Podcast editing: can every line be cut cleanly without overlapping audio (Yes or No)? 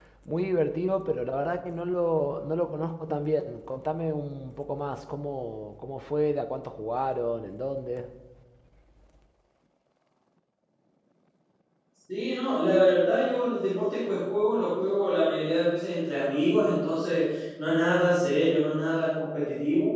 Yes